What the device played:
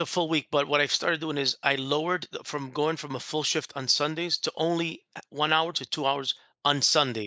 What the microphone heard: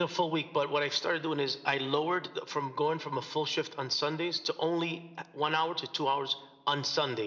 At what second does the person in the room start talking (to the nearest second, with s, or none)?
none